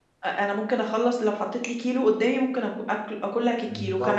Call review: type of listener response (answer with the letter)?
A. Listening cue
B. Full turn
A